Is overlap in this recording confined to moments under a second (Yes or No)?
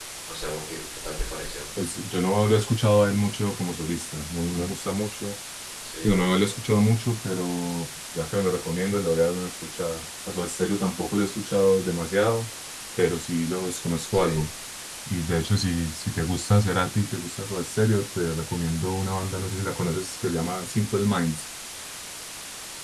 Yes